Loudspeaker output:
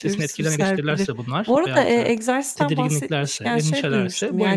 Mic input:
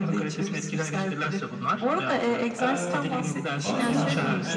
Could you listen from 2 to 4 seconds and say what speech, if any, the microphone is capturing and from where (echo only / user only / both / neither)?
both